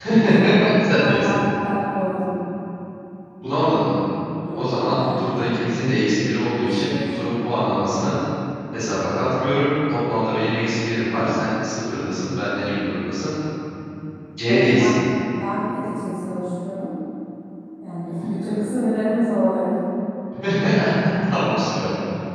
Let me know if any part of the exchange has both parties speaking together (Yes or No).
Yes